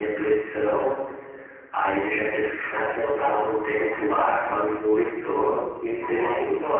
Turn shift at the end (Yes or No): No